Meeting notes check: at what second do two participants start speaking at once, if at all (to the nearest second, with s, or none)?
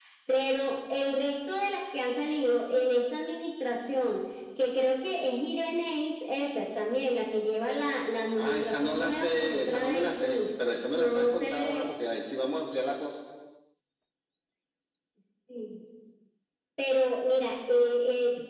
8 s